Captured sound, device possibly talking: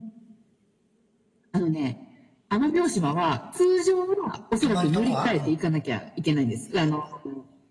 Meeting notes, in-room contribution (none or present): present